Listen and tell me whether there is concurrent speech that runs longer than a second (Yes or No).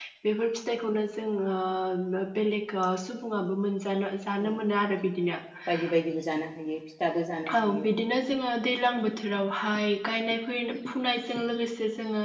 No